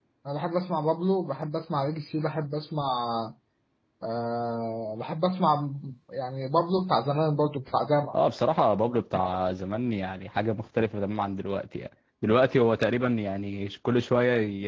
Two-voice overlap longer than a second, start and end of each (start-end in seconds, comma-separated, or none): none